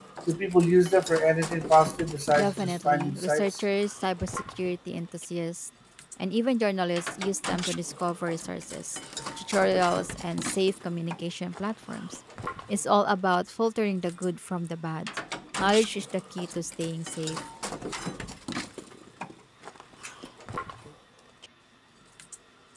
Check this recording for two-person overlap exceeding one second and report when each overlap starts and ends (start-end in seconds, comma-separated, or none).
2.4-3.6